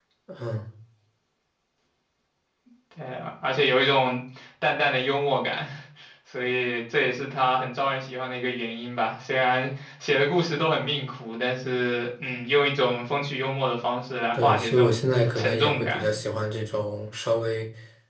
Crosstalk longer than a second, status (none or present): present